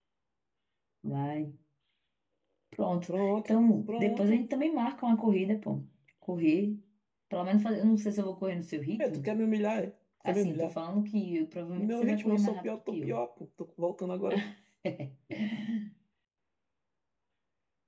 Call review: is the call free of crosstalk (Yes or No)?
No